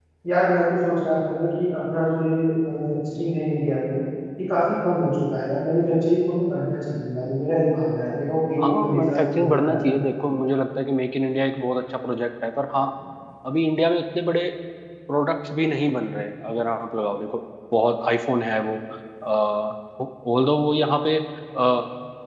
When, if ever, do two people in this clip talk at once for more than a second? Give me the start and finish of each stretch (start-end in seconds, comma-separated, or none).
8.6-9.8